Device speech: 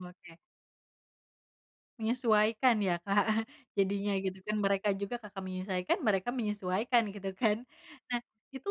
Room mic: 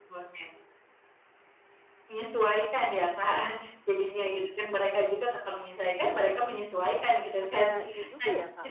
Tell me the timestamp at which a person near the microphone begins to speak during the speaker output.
7.4 s

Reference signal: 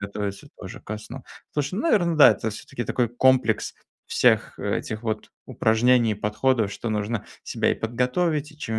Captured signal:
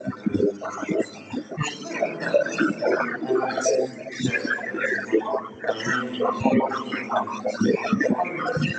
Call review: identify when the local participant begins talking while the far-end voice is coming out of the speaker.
none

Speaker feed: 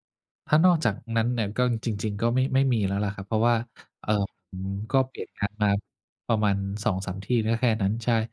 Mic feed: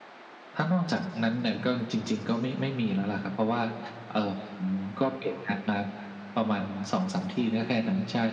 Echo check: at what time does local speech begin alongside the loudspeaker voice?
none

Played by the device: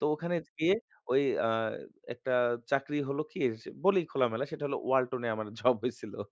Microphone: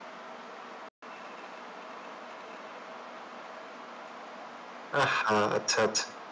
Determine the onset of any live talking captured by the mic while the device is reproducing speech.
5.0 s

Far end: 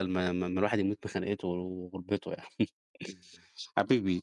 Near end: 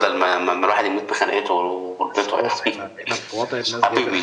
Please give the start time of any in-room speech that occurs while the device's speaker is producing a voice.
2.1 s

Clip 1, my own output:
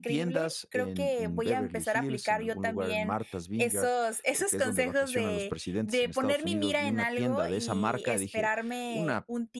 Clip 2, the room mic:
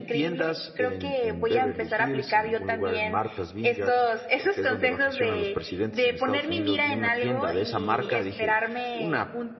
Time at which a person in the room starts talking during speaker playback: none

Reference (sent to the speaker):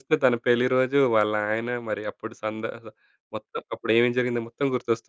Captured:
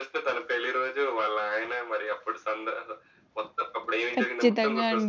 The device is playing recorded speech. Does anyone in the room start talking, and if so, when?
4.2 s

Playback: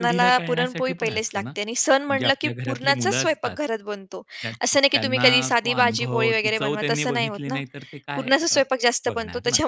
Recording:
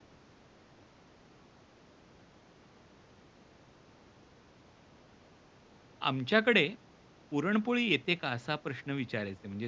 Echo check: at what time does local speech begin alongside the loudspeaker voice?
6.1 s

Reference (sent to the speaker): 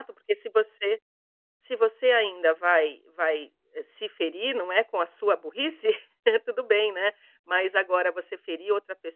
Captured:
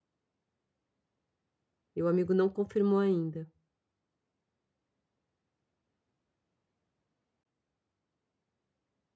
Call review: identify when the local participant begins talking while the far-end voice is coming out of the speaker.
1.9 s

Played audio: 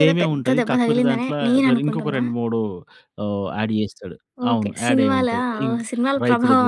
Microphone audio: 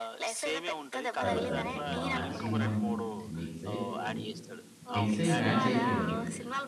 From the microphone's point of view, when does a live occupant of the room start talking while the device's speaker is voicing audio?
1.2 s

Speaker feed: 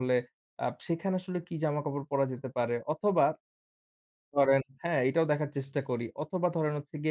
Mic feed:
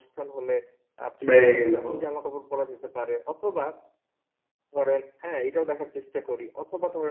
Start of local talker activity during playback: 1.3 s

